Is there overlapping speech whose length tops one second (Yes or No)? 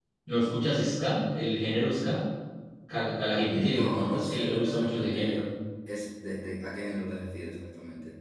Yes